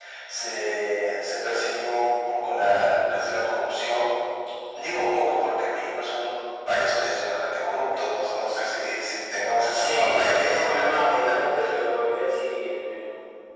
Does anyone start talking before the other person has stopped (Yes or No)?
Yes